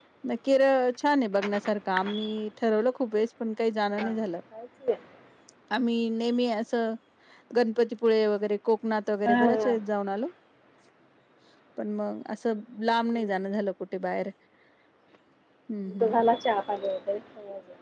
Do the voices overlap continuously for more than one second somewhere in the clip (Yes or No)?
No